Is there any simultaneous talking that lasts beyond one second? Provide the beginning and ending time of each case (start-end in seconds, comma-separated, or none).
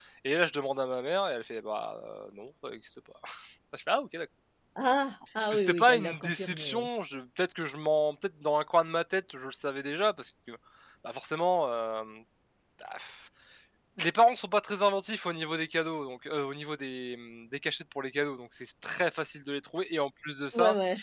5.5-6.9